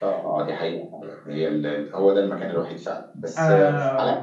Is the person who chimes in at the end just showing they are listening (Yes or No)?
Yes